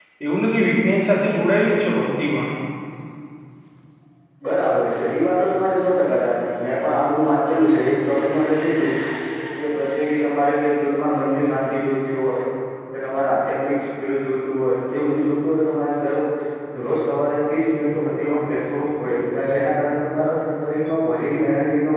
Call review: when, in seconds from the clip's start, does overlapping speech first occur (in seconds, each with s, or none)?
none